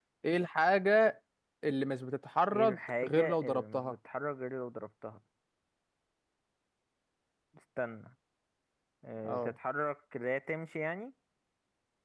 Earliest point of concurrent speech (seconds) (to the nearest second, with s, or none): 3 s